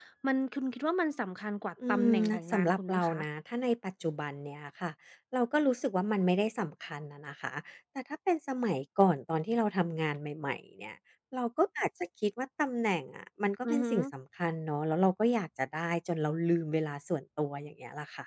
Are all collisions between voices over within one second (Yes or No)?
No